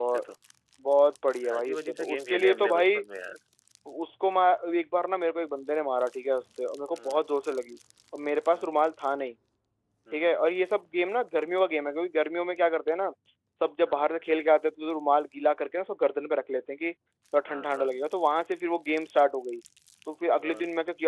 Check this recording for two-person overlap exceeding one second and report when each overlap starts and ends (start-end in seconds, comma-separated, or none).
1.6-3.0